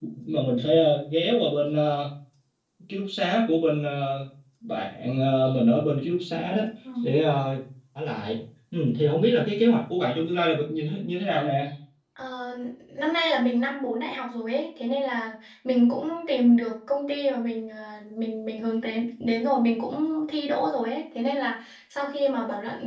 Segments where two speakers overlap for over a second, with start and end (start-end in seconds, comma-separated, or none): none